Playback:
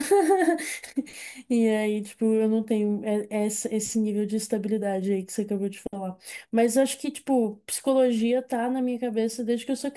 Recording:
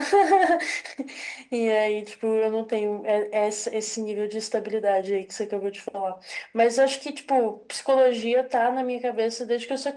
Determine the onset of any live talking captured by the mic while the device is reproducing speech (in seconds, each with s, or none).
none